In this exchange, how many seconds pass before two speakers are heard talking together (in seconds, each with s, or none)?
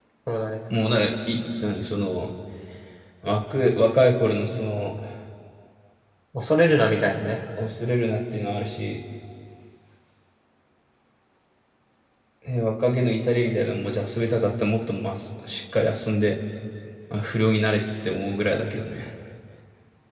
none